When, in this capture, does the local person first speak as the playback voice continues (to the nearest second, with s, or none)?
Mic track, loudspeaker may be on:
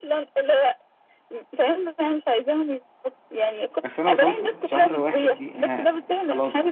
4 s